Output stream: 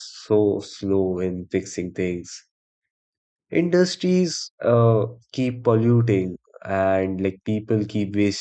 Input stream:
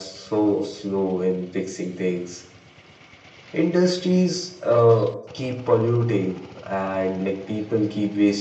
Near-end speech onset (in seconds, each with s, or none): none